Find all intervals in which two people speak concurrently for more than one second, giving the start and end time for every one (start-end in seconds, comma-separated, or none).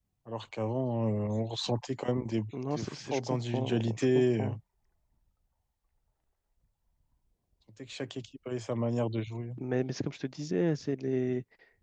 2.8-4.5